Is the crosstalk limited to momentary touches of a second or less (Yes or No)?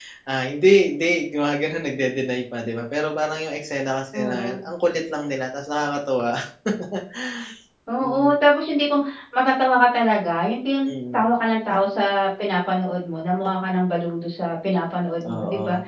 Yes